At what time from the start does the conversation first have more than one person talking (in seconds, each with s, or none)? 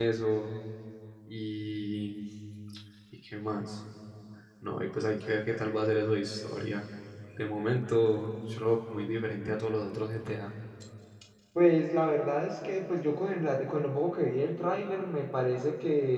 none